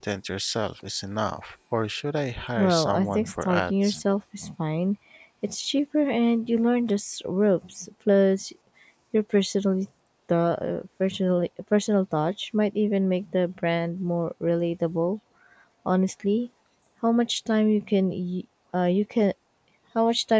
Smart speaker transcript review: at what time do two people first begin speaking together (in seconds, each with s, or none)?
2.6 s